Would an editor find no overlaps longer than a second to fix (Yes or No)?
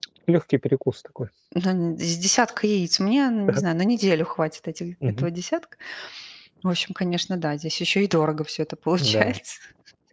Yes